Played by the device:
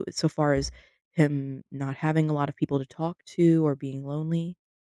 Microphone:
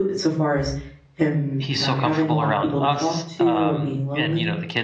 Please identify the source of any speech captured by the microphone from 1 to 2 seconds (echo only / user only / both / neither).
both